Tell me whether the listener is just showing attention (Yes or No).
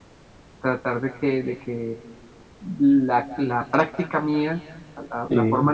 Yes